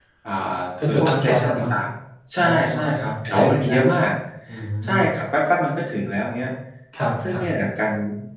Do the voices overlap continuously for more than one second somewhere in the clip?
Yes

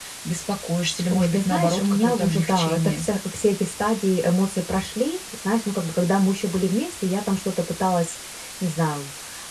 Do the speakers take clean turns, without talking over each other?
No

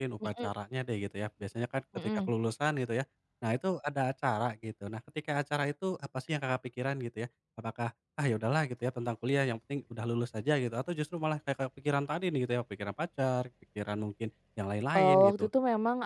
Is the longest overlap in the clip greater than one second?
No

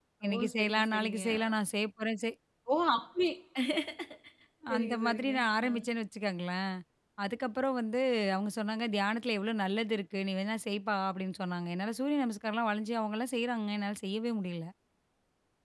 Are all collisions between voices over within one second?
No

